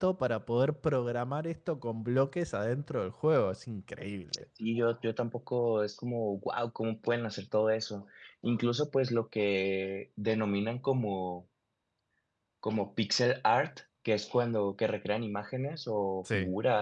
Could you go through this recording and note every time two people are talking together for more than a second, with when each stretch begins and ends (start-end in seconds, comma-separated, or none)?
none